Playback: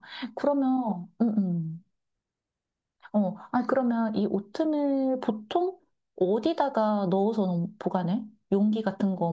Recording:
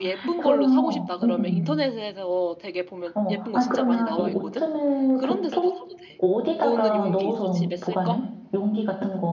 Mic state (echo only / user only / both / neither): both